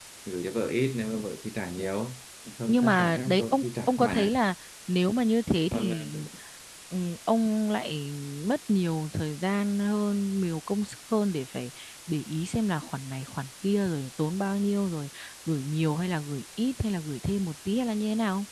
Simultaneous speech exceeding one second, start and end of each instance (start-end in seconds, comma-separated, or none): 2.7-4.3